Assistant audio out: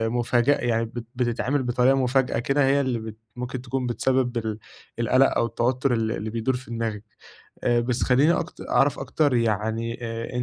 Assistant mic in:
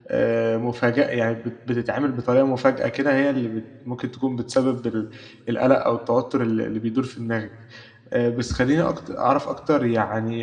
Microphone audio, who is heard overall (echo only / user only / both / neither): echo only